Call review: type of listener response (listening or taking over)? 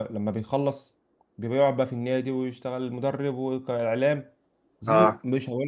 listening